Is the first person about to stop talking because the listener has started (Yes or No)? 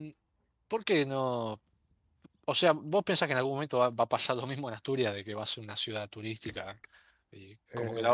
No